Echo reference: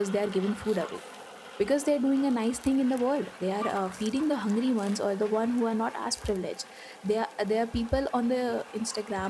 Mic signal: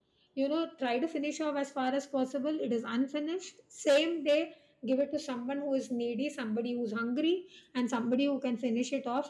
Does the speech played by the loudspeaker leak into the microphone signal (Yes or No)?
No